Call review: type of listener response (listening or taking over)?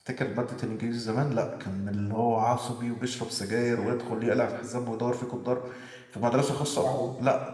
listening